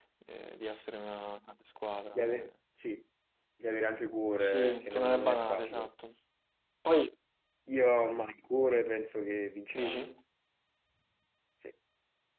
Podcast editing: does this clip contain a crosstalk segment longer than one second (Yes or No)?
Yes